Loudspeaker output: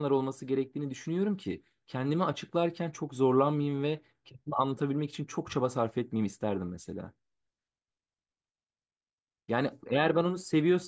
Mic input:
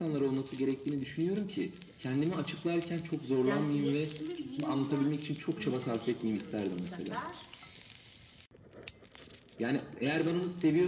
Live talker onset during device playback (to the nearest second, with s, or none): 3 s